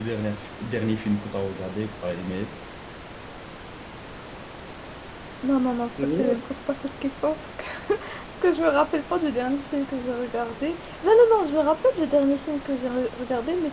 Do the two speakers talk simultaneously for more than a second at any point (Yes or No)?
No